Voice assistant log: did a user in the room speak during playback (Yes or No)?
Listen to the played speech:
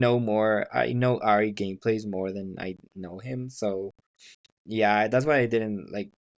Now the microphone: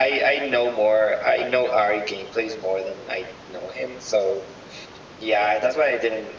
No